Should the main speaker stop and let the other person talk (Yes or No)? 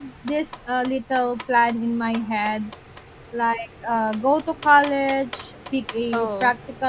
No